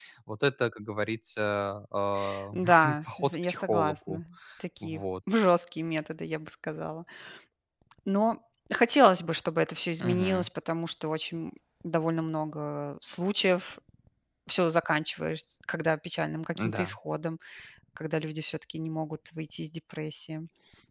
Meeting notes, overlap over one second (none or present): present